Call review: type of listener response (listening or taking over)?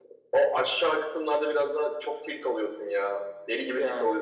listening